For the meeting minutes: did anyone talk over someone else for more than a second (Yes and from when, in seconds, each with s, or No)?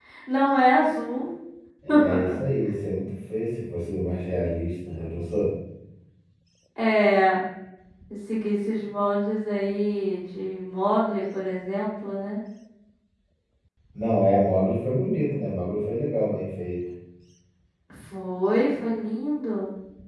No